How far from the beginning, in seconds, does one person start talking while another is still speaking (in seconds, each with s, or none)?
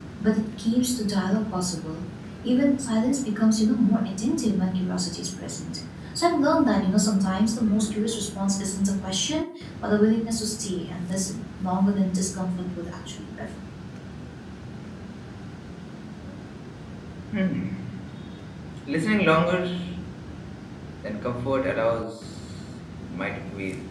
none